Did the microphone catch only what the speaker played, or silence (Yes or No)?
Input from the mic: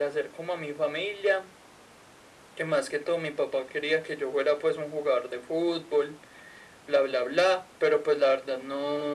Yes